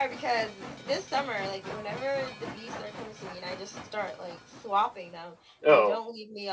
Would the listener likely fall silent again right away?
Yes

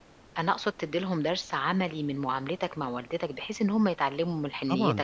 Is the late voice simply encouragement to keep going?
No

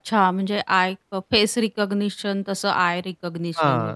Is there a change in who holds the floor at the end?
Yes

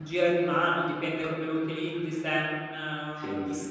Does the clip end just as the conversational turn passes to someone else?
No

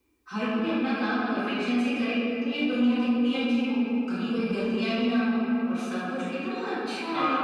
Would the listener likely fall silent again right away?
Yes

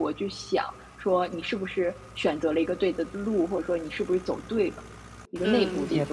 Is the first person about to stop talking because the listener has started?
Yes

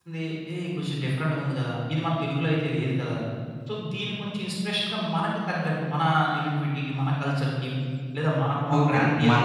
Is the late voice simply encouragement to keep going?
No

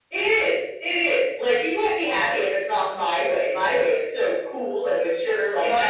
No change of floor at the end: No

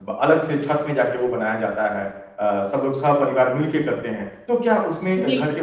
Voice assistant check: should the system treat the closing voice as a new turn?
No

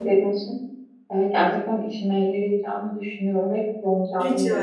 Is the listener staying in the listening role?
No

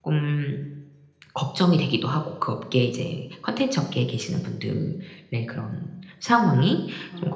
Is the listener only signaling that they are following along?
Yes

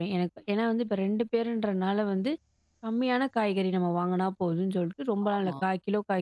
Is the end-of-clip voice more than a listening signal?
No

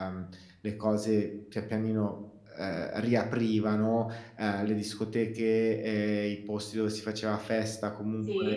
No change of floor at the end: Yes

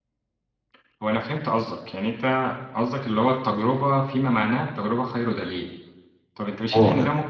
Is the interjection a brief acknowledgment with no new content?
Yes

